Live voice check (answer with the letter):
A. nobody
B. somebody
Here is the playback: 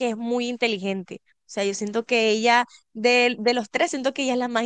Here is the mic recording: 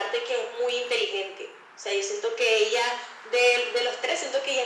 A